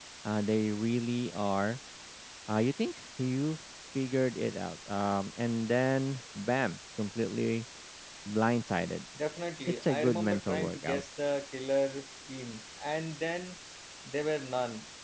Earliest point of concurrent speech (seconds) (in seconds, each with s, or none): 9.8 s